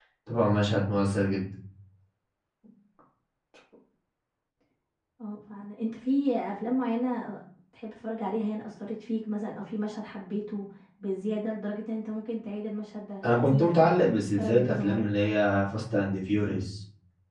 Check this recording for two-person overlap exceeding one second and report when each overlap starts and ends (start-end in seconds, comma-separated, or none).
13.2-15.1